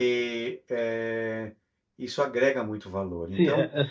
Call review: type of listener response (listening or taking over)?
taking over